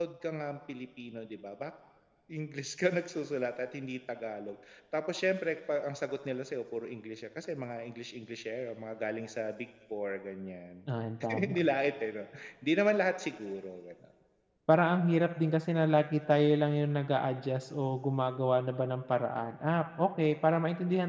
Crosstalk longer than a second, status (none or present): none